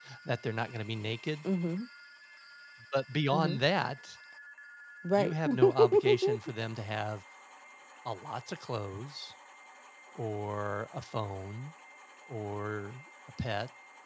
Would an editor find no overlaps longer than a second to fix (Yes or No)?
No